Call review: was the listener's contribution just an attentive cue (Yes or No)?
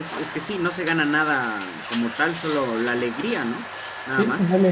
No